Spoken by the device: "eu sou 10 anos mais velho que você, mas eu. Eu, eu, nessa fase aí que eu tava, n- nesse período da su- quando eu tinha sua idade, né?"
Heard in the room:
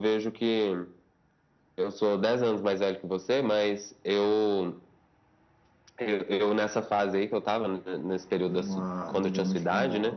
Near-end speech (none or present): present